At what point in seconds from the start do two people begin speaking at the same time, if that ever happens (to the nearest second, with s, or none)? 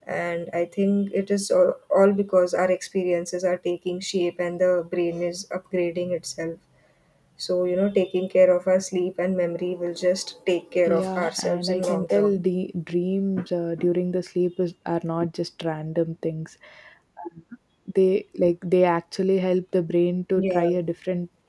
11 s